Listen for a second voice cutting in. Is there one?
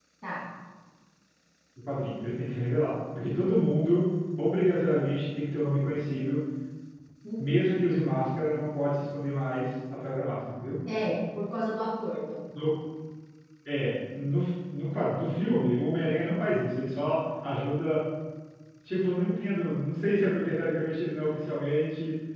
No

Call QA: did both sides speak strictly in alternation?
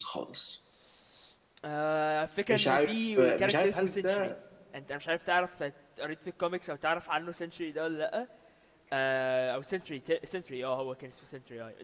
No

